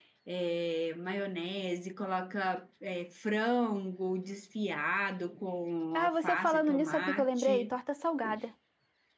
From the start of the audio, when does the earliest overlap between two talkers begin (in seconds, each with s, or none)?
6.0 s